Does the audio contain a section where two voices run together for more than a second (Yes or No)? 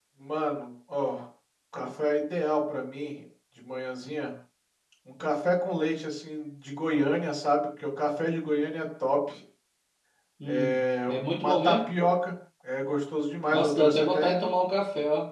Yes